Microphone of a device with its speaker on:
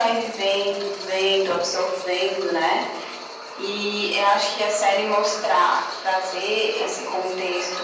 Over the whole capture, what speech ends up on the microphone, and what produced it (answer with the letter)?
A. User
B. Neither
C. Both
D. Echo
D